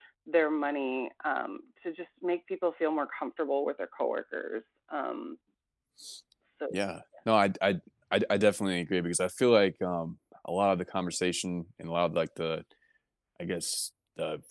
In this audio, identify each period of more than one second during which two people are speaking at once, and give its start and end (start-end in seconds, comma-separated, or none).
none